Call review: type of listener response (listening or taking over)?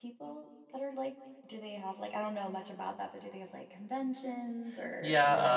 taking over